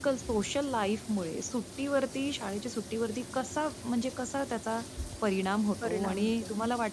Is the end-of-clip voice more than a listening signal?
No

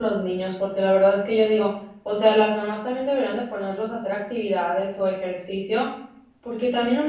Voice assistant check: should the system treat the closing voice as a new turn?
No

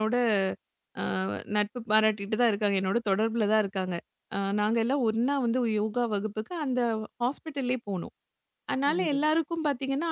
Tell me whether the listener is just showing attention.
Yes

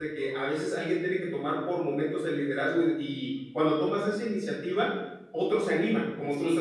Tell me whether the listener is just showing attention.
No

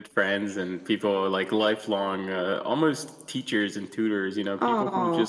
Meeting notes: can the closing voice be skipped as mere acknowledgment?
Yes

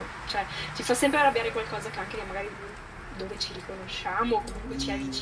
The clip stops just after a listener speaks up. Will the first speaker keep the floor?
No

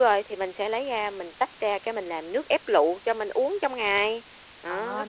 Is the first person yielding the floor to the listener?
Yes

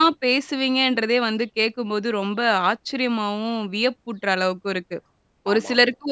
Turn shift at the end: No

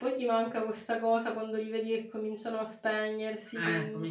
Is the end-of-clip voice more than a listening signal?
Yes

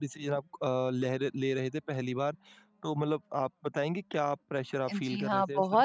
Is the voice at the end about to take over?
Yes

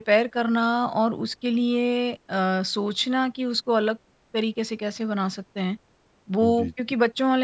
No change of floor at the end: Yes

